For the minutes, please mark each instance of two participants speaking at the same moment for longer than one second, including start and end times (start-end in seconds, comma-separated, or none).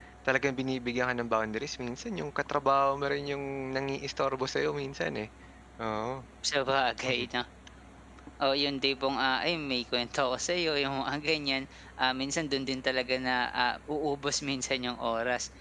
none